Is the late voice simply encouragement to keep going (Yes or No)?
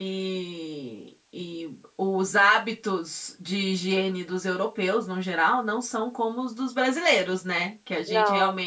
Yes